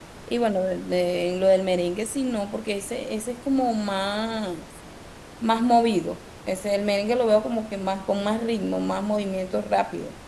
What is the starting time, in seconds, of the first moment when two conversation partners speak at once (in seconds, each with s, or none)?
none